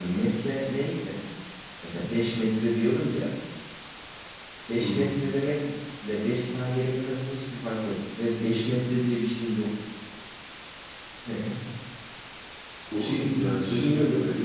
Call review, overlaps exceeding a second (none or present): present